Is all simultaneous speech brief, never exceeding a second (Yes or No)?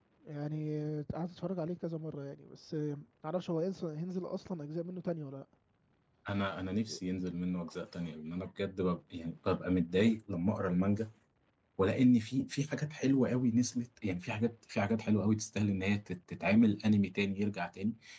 Yes